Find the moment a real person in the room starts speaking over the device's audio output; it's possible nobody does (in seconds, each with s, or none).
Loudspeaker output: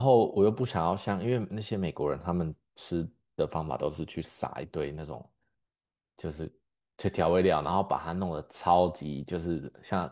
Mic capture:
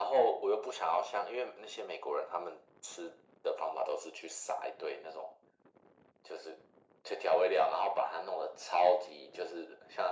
none